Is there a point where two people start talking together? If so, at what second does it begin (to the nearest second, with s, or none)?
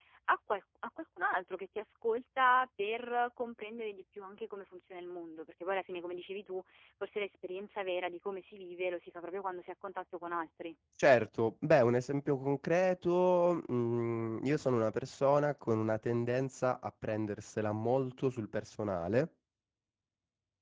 none